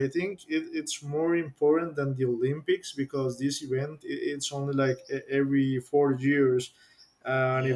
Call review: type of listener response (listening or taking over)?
listening